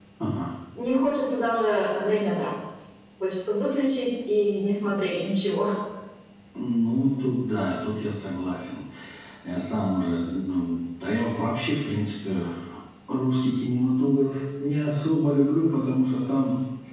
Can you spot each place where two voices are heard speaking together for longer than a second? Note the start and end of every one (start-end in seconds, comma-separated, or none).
none